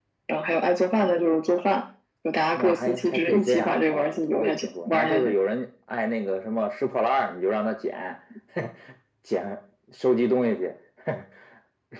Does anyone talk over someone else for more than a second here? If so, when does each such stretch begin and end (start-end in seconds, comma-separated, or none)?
2.5-5.3